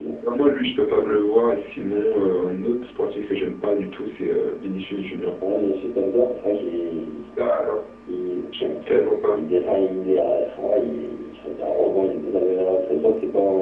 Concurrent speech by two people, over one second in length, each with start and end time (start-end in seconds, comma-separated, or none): none